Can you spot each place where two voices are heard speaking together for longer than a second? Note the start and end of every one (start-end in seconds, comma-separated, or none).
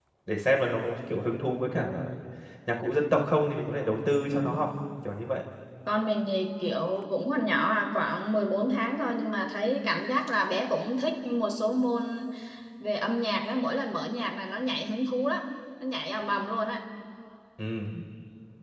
none